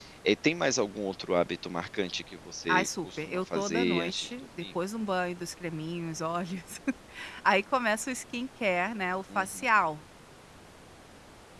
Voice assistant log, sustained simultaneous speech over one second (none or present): present